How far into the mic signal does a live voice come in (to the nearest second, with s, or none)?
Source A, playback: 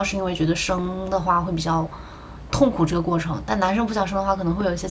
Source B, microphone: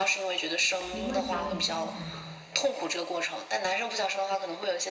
1 s